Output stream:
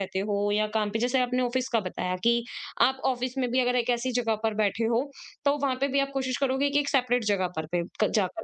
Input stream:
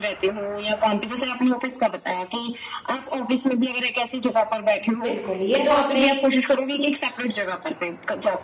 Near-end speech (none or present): present